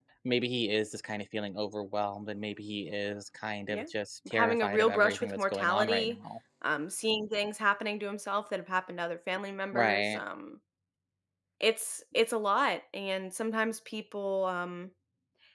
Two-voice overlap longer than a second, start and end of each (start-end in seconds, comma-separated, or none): 4.3-6.2